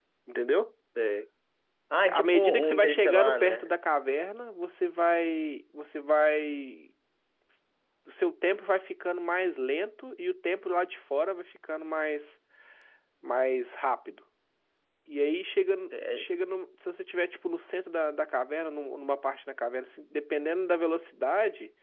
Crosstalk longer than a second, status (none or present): present